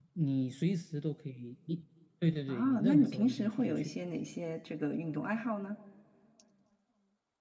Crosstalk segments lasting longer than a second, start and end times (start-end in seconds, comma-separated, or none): 2.5-3.9